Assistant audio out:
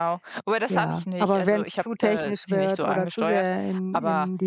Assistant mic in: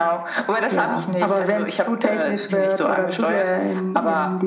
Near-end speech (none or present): none